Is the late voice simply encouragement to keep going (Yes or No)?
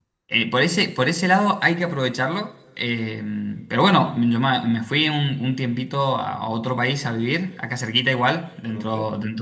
Yes